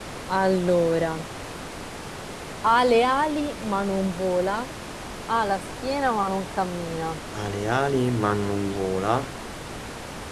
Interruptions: none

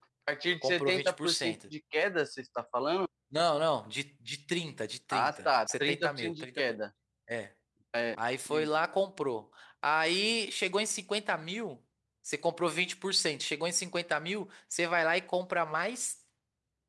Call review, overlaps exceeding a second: present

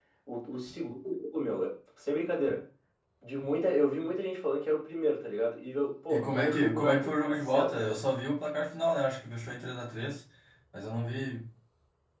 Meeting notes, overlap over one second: present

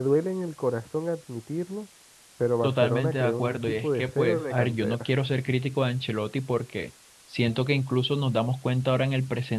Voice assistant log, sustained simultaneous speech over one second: present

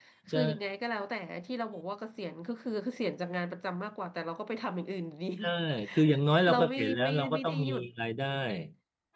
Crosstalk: present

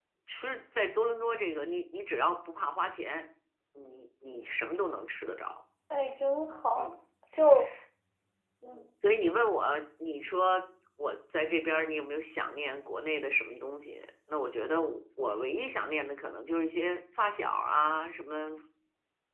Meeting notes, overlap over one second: none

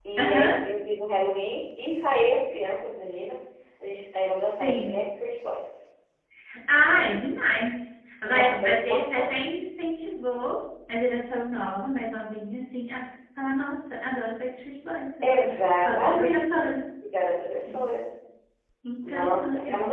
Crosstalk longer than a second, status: present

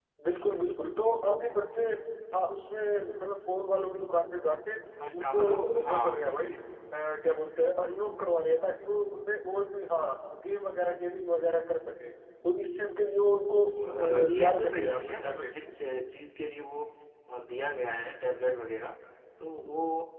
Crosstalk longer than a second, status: present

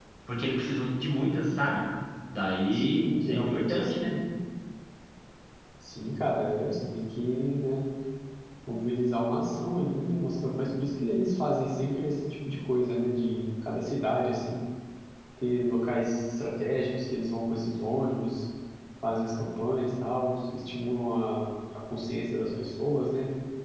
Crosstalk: present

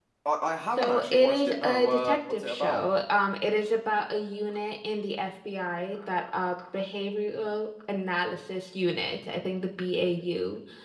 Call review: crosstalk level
present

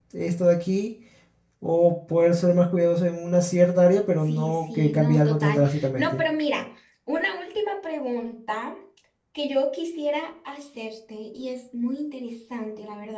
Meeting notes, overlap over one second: present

